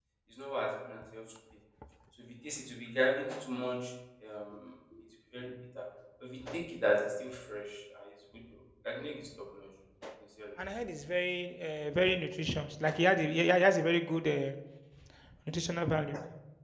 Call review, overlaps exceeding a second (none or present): none